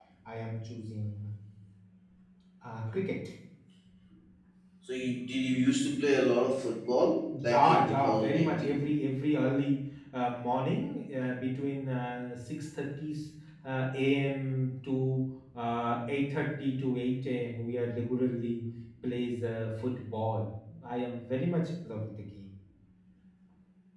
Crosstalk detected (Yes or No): Yes